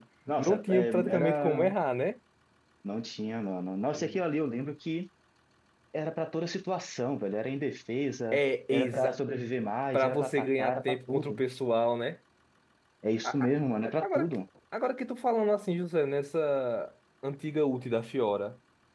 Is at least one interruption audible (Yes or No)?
Yes